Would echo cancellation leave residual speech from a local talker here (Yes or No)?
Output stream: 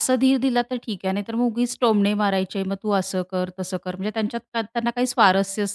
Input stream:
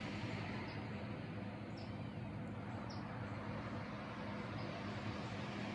No